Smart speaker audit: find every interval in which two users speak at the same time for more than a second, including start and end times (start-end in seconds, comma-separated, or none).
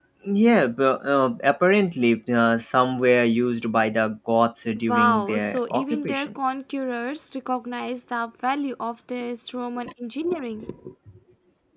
4.8-6.3